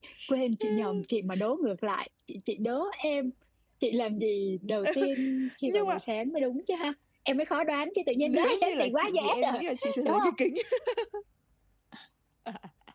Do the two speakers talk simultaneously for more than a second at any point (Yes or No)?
Yes